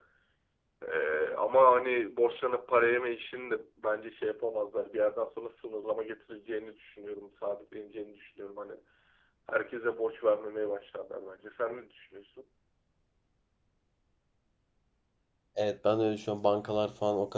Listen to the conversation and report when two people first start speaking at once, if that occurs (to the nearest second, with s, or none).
none